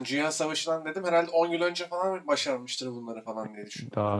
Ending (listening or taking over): taking over